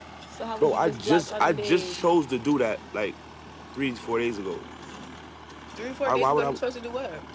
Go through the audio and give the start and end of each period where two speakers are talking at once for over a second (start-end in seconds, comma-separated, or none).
0.6-1.9